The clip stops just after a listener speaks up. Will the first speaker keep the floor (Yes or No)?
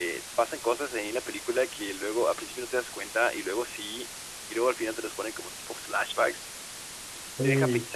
Yes